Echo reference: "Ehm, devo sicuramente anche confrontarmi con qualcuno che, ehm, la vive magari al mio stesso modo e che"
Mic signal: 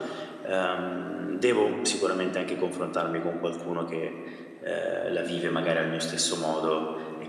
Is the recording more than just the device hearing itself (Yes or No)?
No